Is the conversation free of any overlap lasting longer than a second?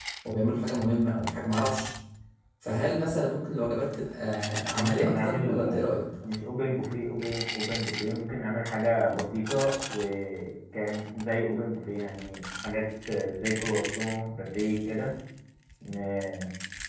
No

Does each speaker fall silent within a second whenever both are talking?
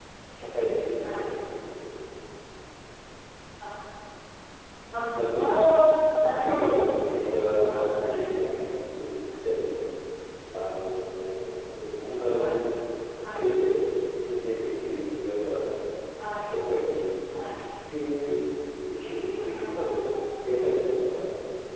No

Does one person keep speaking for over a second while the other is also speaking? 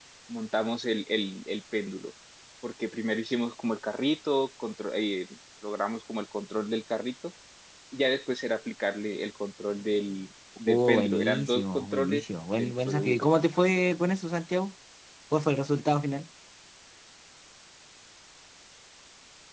Yes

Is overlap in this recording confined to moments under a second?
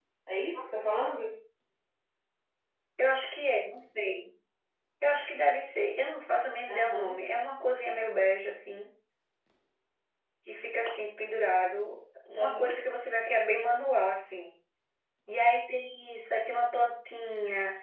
Yes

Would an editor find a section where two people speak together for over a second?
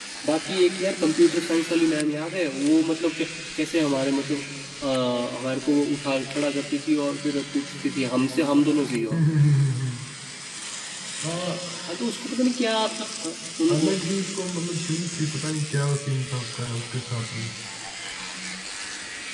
No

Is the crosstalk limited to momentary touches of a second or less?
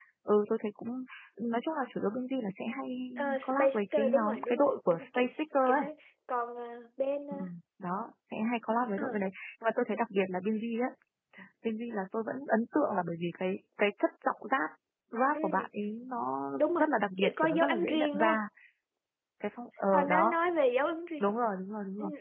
No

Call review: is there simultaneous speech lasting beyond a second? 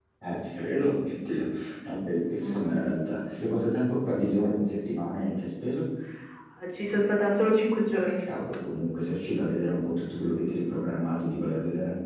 No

